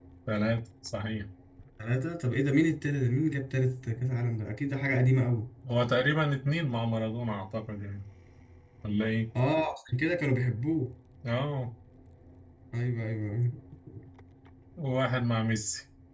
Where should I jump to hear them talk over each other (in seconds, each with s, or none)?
none